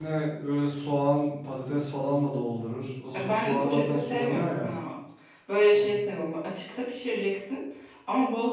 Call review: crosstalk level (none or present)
present